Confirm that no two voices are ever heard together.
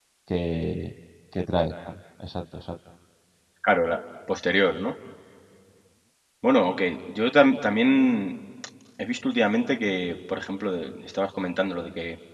Yes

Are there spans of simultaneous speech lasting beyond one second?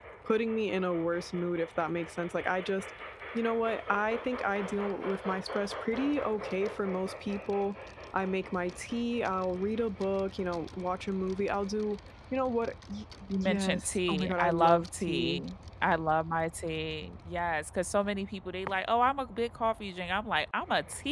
Yes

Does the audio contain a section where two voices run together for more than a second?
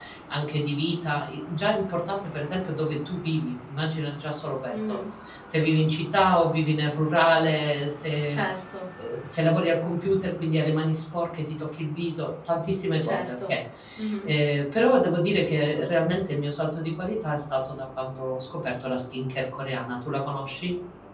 No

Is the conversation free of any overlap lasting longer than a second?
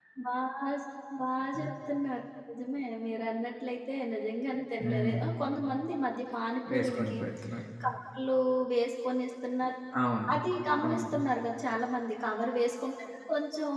Yes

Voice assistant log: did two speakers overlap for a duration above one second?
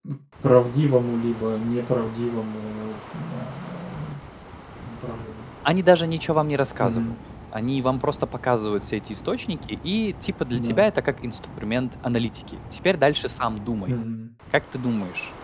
No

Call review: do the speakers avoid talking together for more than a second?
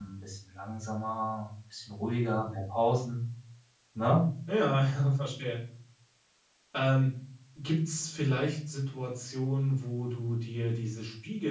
Yes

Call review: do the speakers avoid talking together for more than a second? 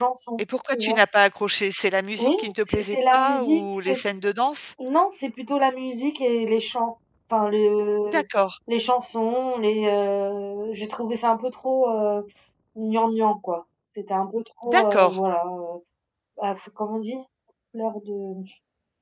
No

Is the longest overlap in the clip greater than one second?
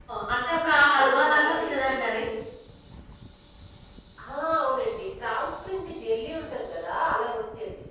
Yes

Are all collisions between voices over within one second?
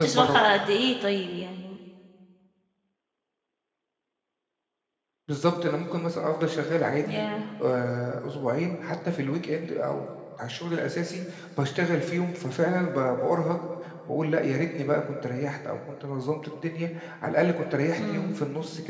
Yes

